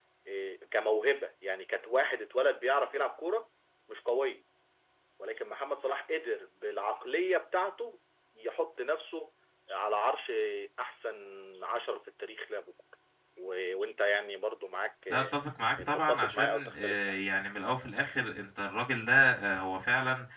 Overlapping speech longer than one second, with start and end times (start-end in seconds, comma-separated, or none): 15.8-17.2